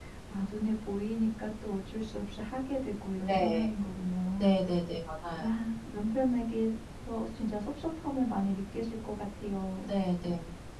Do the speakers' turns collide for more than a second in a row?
No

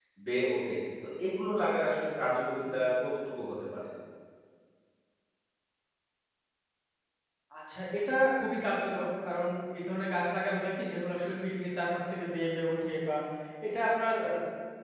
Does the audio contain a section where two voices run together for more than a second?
No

